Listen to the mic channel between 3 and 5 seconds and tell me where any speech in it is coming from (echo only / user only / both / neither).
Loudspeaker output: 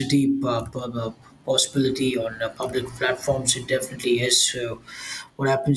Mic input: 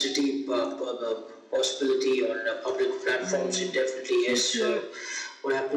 both